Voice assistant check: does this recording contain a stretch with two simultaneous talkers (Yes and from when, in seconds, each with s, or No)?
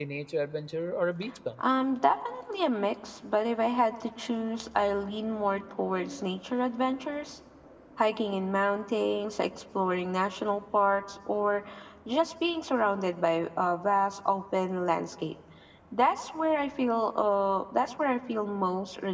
No